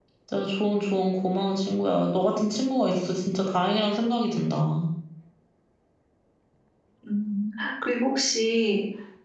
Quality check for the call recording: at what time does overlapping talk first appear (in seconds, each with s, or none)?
none